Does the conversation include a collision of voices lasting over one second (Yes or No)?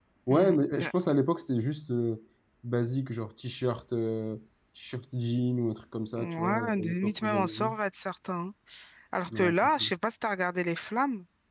Yes